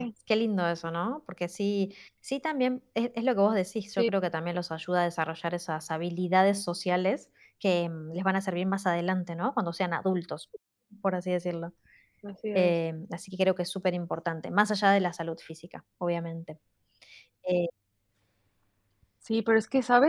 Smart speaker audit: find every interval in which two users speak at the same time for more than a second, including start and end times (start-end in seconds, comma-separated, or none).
none